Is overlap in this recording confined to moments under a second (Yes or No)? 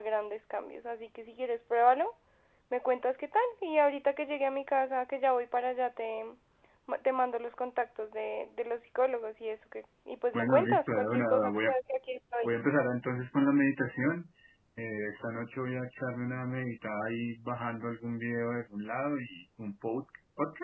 No